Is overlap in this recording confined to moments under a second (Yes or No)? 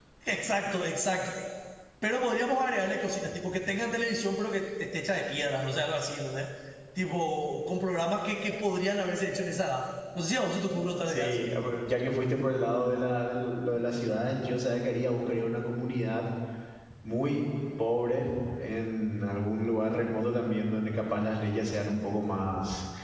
Yes